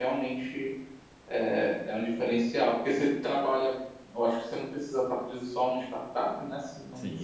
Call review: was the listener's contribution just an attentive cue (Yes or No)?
No